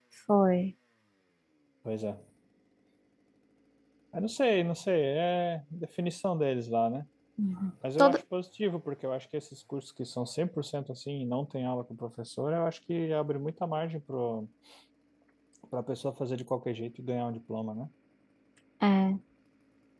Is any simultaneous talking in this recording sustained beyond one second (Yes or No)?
No